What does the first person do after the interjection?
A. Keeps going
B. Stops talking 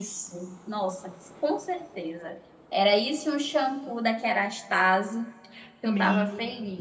B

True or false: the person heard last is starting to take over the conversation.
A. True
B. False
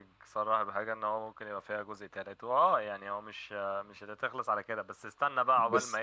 B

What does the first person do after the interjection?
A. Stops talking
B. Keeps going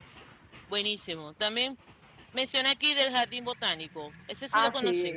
A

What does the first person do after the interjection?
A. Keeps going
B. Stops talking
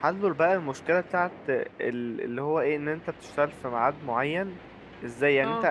A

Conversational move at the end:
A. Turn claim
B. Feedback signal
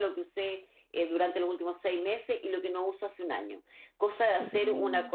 B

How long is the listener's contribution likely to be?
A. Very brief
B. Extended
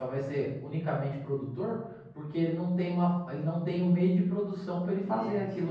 B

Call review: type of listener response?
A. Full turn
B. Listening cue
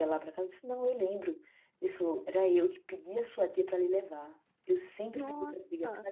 B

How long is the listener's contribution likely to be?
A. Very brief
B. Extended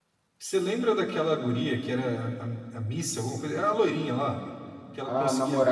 B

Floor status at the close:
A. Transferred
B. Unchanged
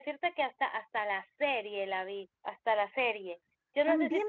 A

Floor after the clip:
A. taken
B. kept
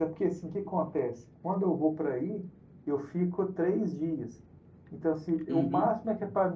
B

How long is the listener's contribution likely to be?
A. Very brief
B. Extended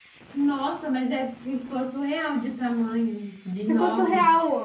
B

